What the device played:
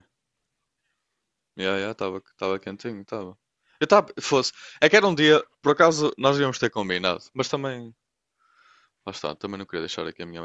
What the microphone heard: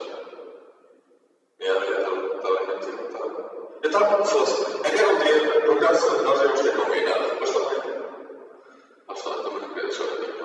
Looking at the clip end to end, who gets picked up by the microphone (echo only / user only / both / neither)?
echo only